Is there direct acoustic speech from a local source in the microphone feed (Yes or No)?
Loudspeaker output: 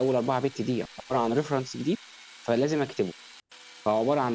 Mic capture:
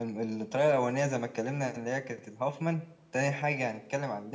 Yes